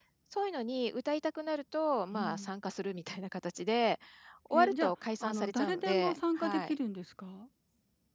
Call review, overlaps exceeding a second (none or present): present